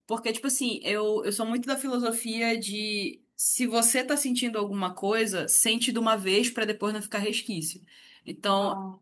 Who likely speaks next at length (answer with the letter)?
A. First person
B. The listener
A